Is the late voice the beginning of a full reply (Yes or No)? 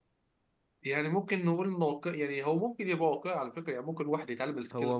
Yes